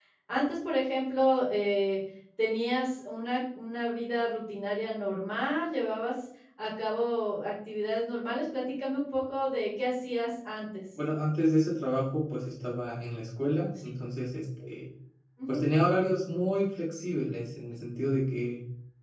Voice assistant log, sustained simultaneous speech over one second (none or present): none